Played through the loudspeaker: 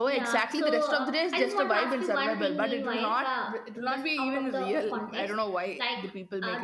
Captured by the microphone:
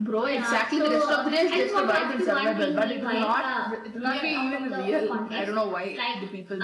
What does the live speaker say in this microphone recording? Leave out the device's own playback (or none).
yeah.